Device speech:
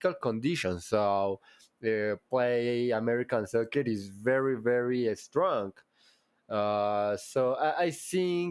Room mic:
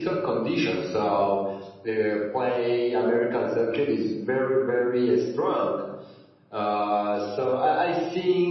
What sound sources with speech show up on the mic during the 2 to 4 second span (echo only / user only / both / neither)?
echo only